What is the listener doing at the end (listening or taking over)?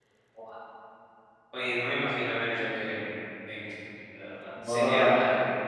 taking over